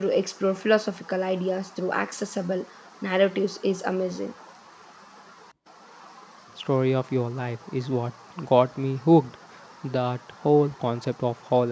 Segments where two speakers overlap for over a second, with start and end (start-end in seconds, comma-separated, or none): none